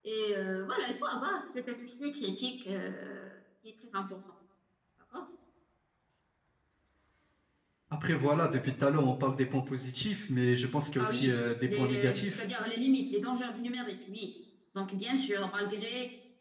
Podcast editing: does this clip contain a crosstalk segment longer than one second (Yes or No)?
Yes